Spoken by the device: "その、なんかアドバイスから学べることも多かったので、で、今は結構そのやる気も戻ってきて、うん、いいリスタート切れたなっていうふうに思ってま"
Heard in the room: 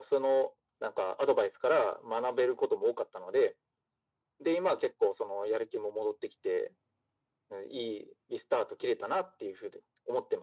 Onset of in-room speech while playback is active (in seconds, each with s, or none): none